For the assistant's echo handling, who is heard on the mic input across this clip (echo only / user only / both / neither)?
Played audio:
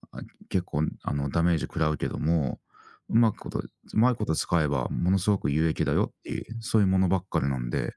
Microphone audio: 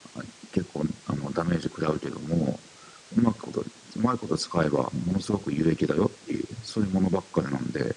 echo only